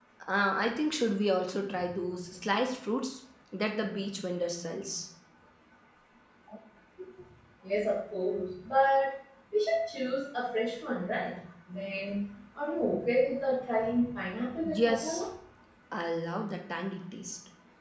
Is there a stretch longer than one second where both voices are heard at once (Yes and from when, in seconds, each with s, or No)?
No